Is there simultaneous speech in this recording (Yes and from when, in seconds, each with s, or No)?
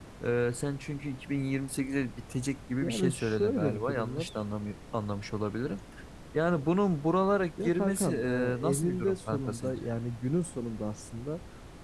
Yes, from 2.8 s